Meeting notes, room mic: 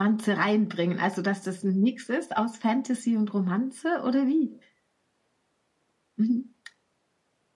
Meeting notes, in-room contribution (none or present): none